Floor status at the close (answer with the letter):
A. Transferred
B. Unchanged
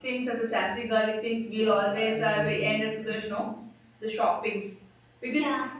B